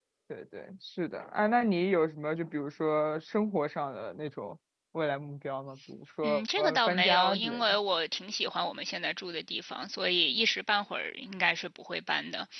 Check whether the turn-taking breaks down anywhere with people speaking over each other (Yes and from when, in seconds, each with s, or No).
Yes, from 6.2 s